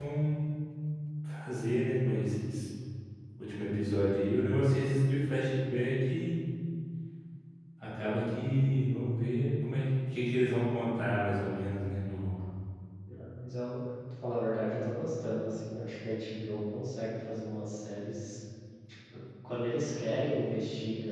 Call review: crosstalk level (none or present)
none